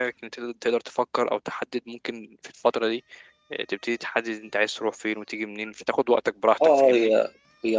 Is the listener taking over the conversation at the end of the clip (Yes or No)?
Yes